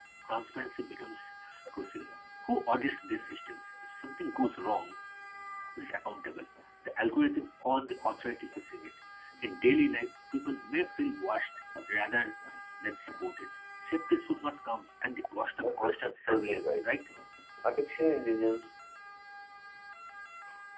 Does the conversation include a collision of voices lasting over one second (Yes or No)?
Yes